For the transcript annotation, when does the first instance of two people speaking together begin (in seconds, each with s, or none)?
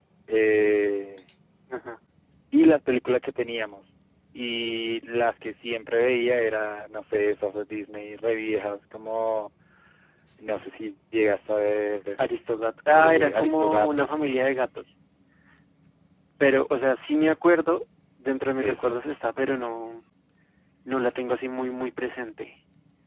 12.9 s